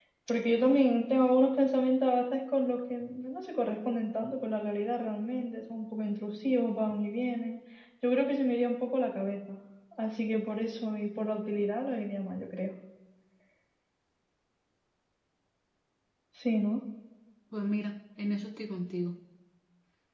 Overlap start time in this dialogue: none

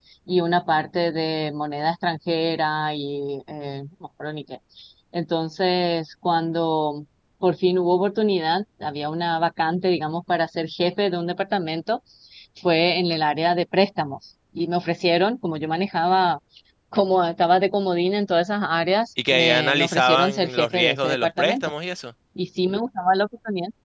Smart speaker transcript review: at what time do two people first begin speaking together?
19.2 s

